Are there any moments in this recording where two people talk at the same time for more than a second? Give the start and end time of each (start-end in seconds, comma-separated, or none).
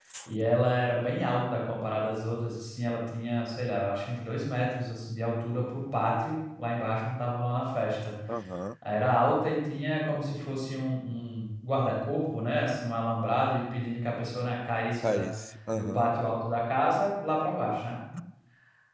none